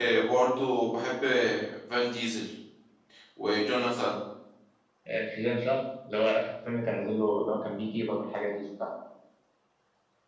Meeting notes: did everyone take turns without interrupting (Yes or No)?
Yes